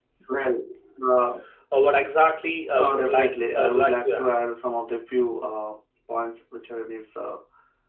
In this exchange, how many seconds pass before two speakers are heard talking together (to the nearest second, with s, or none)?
3 s